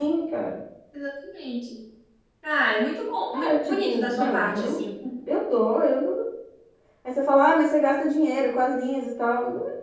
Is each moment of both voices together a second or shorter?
No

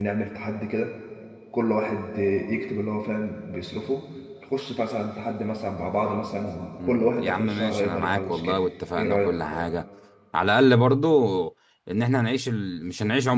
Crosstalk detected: Yes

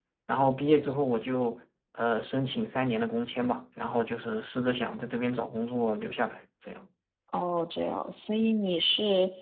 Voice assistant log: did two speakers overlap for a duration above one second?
No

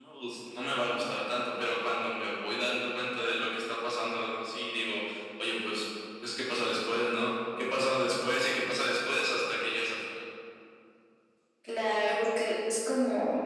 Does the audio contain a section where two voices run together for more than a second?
No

